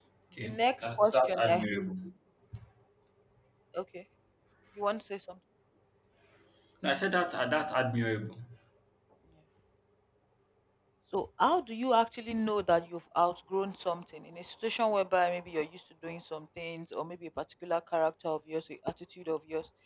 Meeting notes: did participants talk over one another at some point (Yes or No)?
Yes